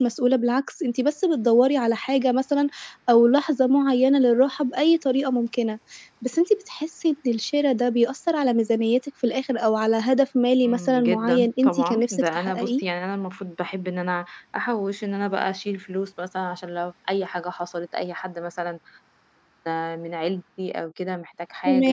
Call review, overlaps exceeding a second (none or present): present